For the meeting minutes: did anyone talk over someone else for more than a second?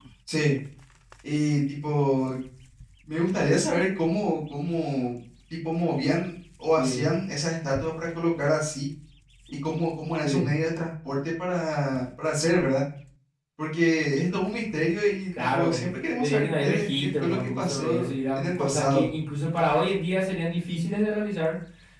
Yes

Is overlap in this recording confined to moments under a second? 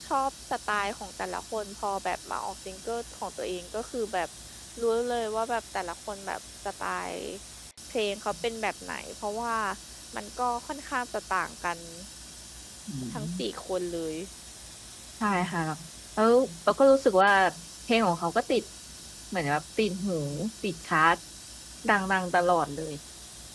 Yes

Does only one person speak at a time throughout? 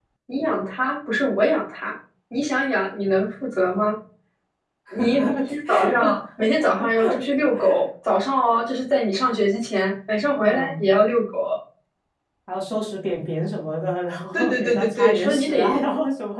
No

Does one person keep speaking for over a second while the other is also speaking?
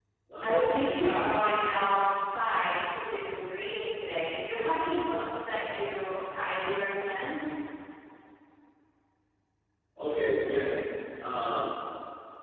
No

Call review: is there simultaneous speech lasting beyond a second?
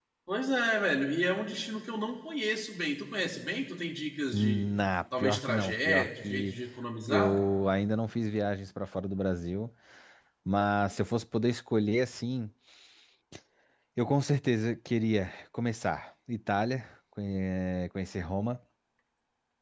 Yes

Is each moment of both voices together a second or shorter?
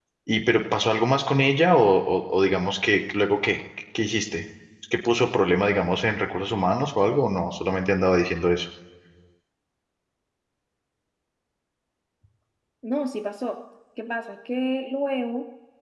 Yes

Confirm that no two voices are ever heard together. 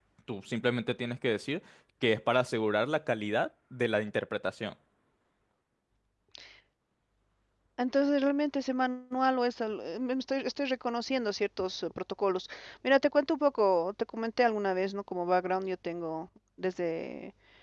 Yes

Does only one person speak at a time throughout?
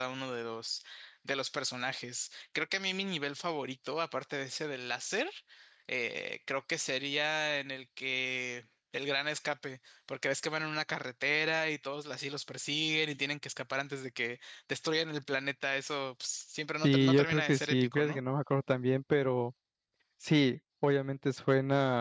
No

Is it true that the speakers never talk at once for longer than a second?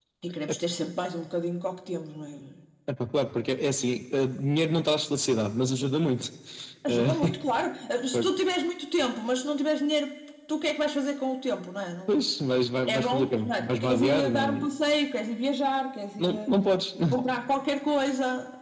No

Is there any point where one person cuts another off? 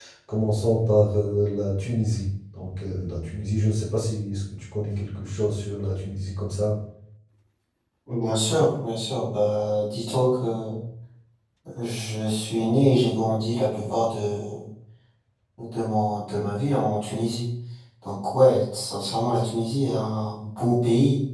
No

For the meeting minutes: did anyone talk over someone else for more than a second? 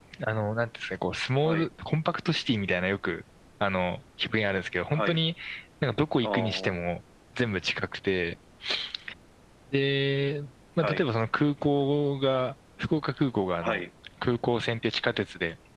No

